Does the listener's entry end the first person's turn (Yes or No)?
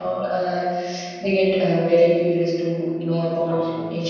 No